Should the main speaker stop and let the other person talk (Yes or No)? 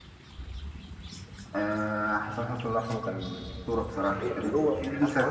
Yes